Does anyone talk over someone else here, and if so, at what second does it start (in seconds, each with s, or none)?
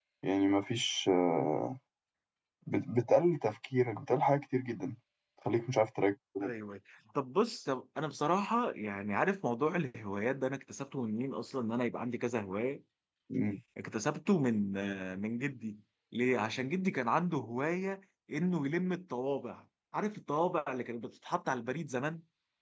none